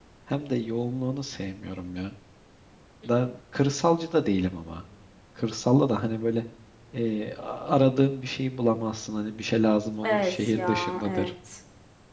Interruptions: present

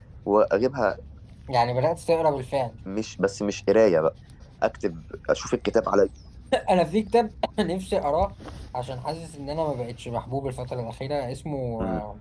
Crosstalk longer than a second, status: none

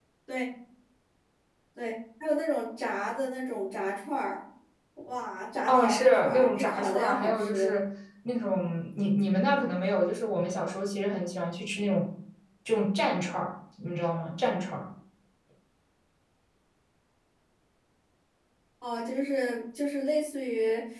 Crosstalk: present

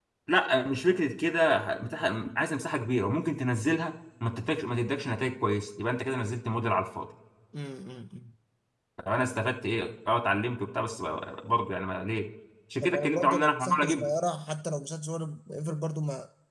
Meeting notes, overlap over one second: present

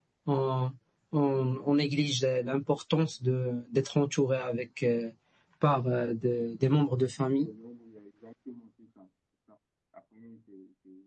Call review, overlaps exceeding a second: none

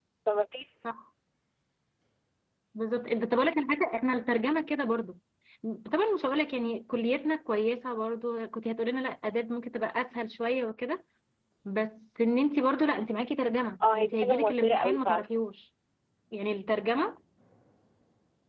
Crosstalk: present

